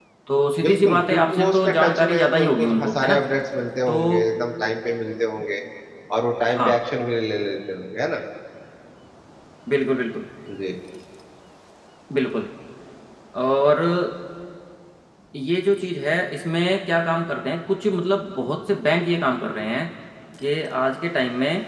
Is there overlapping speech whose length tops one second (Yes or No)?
Yes